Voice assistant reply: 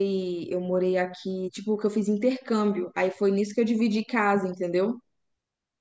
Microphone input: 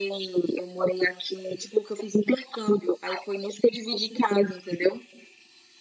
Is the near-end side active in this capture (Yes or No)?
No